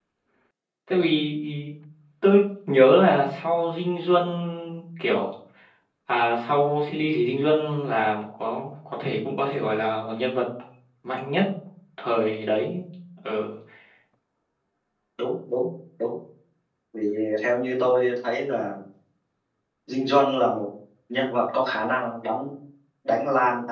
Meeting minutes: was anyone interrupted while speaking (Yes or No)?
No